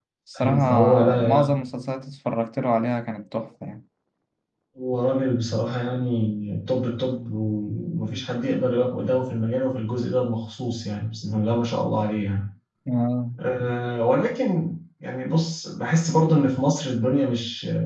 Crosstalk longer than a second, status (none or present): present